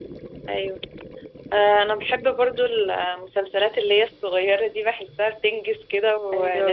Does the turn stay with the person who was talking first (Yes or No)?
No